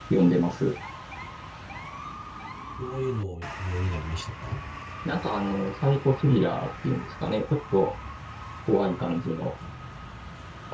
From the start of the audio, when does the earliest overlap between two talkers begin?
none

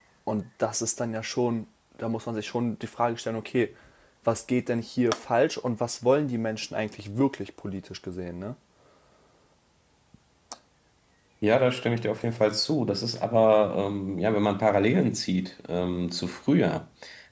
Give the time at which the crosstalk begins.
none

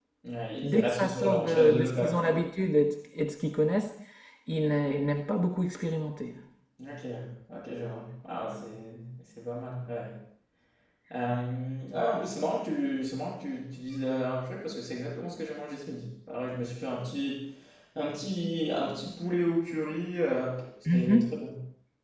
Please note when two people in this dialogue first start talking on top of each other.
0.6 s

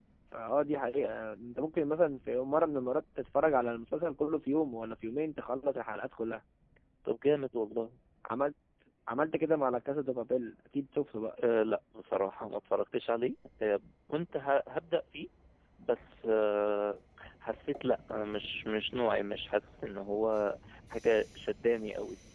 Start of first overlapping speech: none

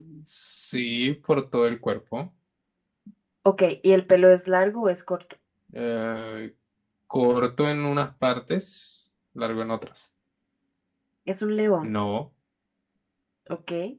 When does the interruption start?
none

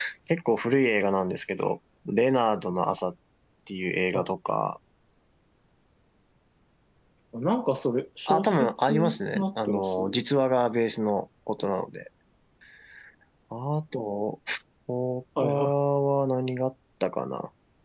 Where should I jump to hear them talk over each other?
8.3 s

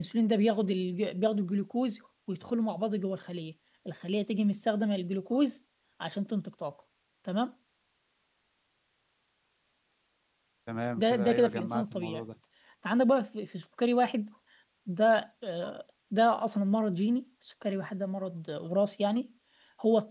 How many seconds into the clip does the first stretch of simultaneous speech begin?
11.0 s

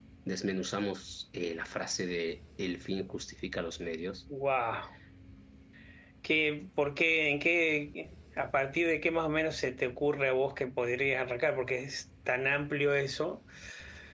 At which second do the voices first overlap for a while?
none

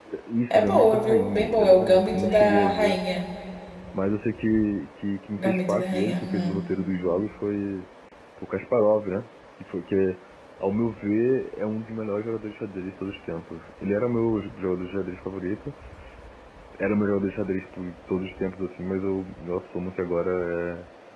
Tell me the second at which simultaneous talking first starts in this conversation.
0.5 s

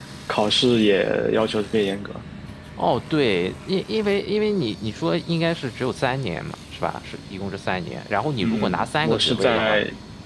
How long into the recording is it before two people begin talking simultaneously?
8.4 s

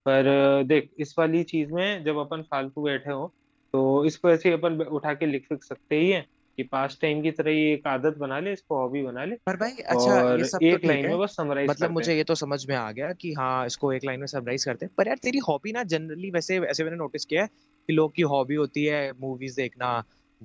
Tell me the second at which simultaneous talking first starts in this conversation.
10.0 s

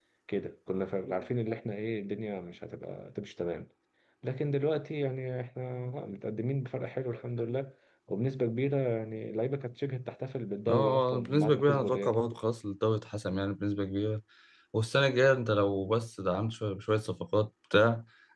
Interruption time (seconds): 10.7 s

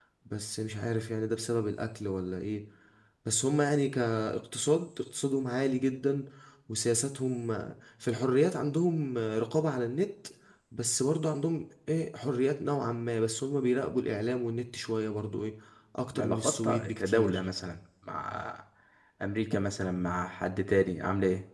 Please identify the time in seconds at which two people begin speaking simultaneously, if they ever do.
16.1 s

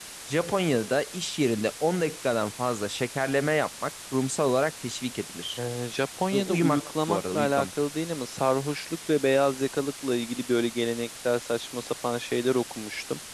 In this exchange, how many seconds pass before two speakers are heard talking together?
6.3 s

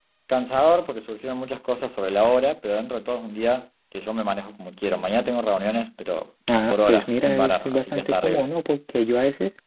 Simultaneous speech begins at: 6.5 s

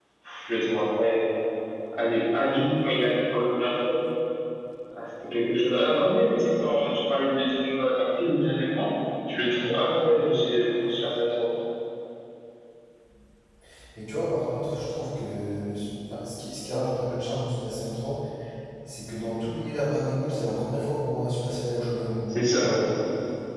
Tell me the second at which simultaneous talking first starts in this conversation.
none

